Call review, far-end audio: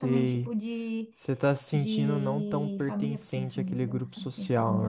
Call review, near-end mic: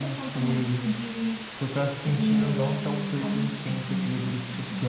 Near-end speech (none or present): none